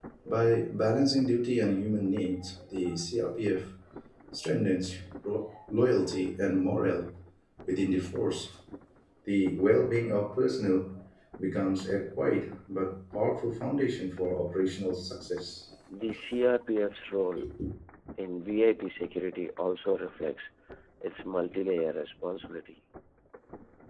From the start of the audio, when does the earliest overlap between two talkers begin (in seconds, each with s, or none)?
none